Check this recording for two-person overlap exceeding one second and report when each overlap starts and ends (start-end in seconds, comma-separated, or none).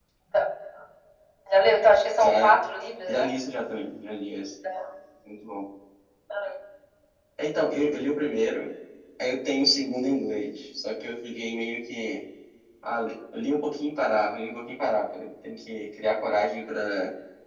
none